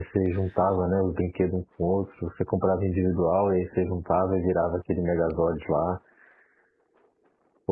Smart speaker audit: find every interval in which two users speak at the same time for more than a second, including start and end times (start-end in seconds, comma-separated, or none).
none